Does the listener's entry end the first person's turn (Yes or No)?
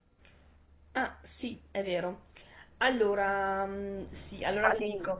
No